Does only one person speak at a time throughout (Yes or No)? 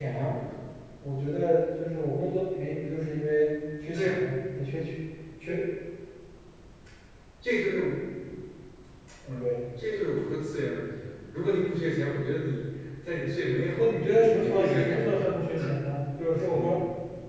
No